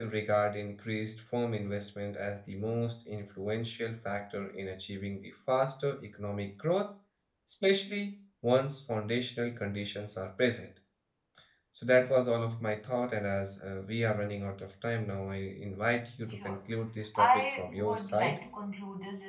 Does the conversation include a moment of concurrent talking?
Yes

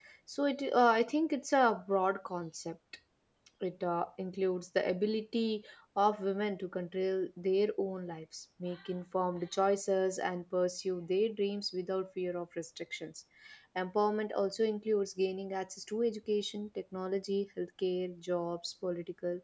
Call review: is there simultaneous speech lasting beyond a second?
No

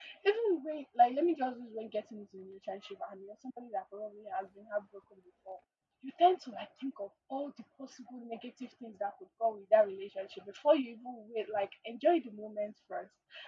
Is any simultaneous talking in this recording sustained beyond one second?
No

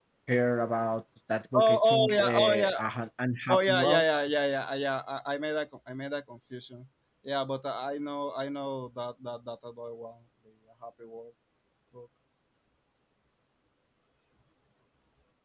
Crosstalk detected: Yes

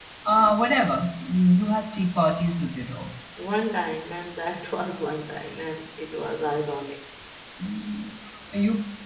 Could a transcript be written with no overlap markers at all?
Yes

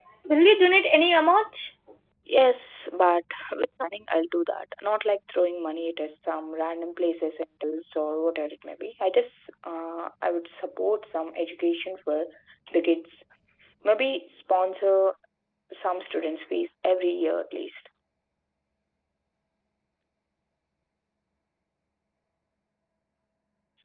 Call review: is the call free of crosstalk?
Yes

